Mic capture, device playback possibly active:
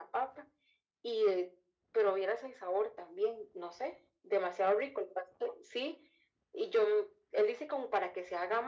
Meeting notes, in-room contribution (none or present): none